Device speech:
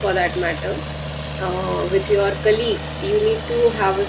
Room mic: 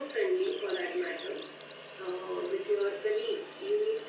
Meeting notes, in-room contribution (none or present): none